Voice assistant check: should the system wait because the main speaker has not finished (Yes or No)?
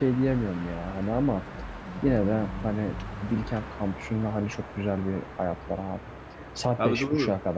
Yes